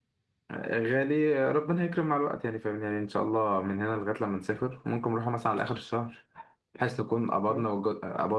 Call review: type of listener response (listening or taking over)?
listening